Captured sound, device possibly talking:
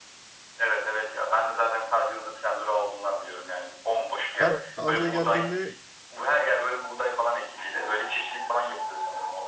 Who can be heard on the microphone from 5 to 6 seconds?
both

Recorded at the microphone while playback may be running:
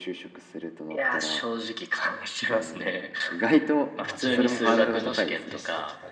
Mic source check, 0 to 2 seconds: echo only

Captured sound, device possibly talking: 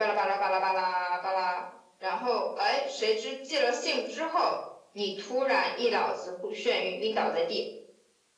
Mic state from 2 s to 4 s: echo only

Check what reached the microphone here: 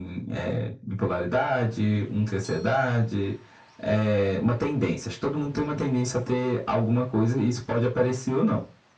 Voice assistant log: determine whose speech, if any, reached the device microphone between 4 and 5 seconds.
echo only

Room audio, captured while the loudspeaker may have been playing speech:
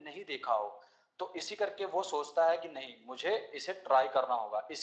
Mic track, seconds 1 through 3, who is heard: echo only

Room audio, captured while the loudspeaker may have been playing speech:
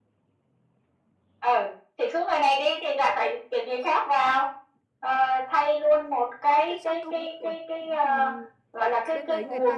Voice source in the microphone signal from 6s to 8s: both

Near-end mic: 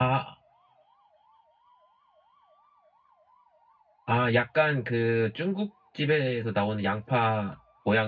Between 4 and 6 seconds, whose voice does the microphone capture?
user only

